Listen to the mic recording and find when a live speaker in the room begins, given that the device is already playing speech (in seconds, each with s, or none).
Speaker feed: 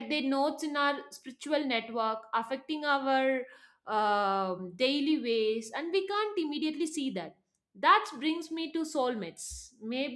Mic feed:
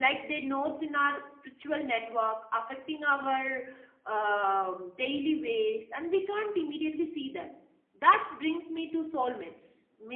none